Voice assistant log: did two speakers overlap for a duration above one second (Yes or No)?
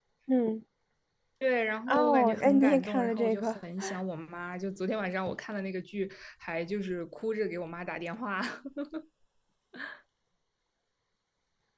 Yes